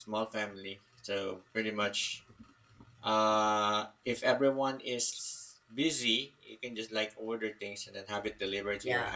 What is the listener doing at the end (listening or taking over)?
taking over